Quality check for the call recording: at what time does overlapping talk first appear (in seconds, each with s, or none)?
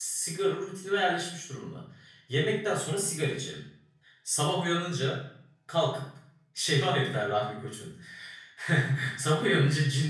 none